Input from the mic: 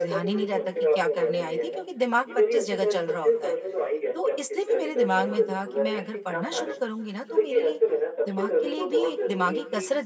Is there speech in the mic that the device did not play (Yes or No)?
Yes